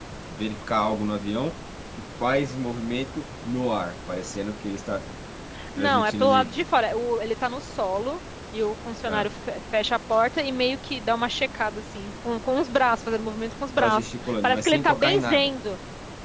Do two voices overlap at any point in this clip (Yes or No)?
Yes